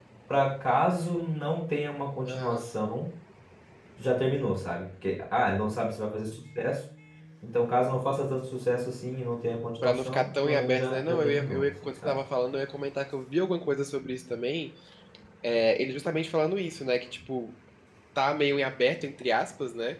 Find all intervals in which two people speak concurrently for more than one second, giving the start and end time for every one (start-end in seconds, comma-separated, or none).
9.8-12.2